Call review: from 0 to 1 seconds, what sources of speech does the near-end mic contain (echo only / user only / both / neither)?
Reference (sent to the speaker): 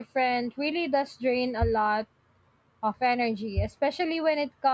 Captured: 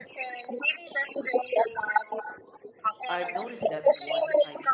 echo only